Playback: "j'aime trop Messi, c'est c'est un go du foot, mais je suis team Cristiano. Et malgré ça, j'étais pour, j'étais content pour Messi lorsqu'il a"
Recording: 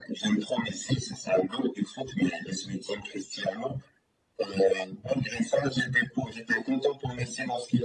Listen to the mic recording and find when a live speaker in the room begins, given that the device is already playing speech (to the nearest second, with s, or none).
none